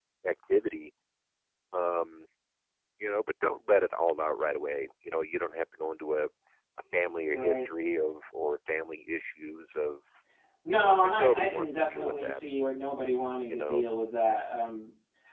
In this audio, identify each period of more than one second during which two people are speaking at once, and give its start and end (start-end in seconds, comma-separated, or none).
10.7-12.4